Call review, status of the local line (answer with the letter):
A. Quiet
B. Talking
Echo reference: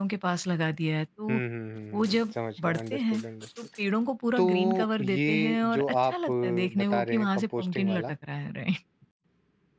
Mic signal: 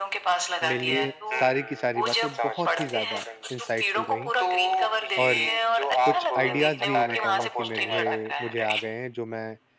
B